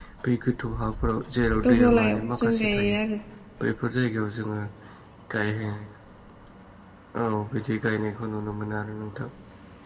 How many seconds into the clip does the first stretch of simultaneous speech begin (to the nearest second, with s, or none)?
2 s